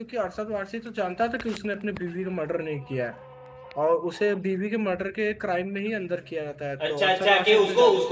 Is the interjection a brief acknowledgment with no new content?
No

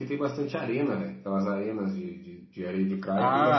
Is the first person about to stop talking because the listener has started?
Yes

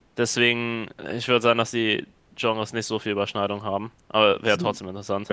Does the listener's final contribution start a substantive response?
Yes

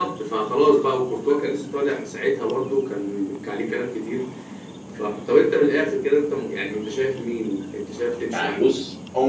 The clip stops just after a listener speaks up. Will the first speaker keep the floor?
No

